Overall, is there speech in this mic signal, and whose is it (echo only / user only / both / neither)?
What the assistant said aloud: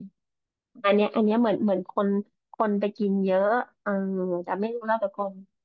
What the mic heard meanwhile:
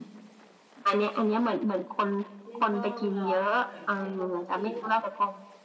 both